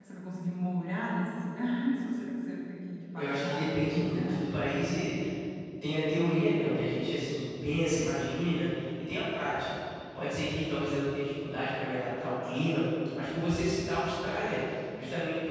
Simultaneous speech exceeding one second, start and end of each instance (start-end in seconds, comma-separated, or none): 3.2-4.6